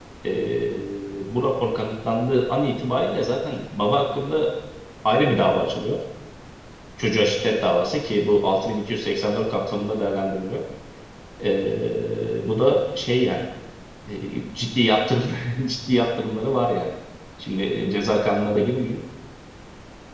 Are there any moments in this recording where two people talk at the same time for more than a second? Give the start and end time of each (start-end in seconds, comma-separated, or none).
none